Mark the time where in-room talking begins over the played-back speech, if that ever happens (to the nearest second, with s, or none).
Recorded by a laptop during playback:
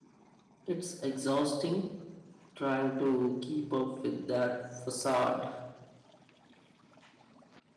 1 s